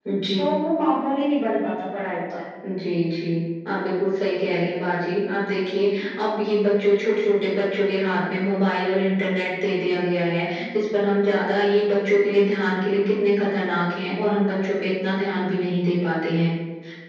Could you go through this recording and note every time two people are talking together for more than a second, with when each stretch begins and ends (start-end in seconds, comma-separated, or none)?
none